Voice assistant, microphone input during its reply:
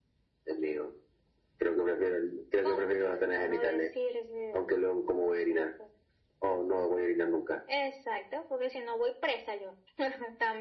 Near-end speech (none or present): none